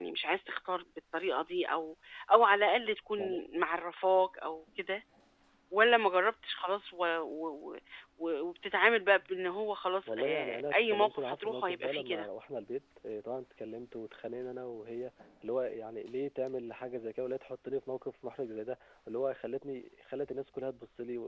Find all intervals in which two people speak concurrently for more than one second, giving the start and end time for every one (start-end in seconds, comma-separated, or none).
10.1-12.3